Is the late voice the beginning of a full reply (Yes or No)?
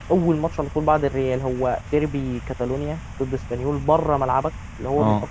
No